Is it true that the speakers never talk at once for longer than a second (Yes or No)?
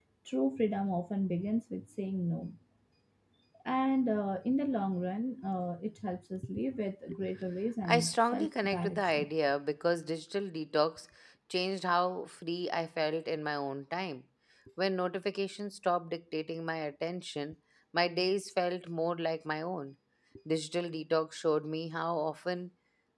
No